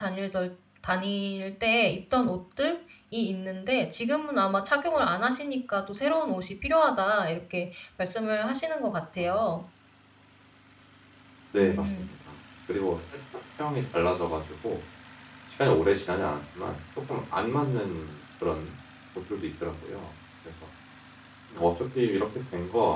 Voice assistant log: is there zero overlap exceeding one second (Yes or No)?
Yes